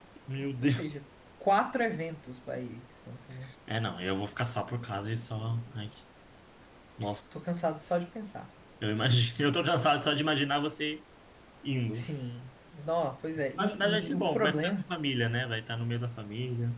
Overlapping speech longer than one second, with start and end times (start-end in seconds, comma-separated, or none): 13.6-14.9